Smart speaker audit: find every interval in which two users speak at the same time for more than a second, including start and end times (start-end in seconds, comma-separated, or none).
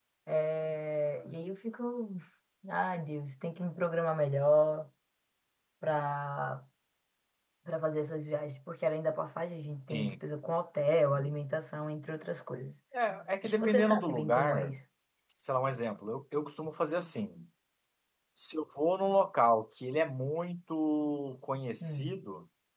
13.4-14.7